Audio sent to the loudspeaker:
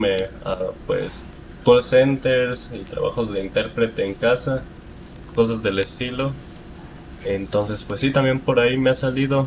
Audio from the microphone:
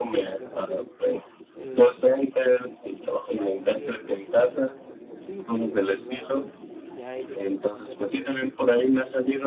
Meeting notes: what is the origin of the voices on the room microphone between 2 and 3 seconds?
both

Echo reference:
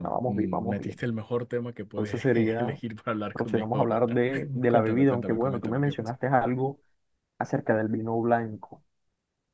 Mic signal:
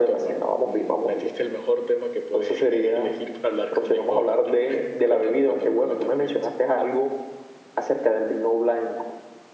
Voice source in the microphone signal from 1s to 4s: echo only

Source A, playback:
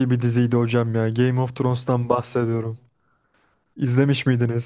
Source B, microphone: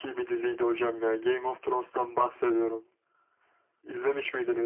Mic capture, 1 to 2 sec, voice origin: echo only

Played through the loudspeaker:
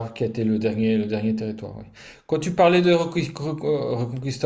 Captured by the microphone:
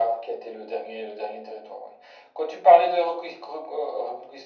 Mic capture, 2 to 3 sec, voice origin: echo only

